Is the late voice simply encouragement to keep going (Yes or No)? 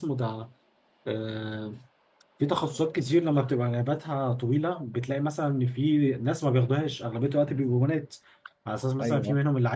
Yes